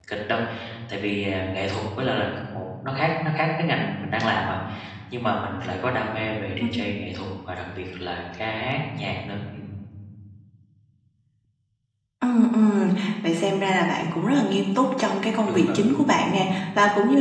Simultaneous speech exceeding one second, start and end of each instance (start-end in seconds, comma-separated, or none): none